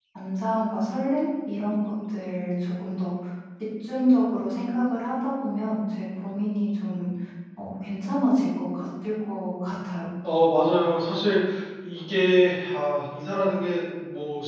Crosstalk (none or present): none